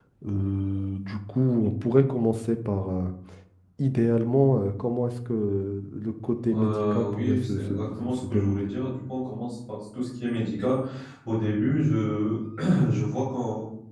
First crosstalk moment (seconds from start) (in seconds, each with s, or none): 6.5 s